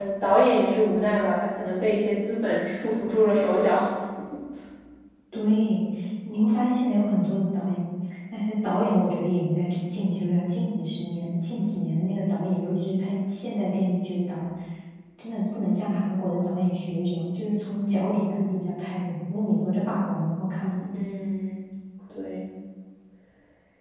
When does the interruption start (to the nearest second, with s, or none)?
none